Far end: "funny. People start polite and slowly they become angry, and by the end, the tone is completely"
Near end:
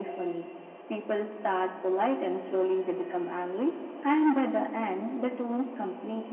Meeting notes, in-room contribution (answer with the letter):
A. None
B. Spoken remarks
A